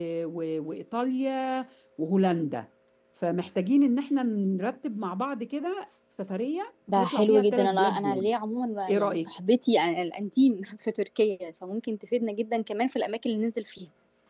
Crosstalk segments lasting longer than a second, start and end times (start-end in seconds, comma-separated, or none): 7.0-8.3